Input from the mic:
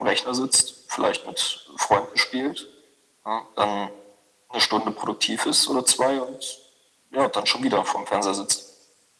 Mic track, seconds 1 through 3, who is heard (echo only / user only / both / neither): echo only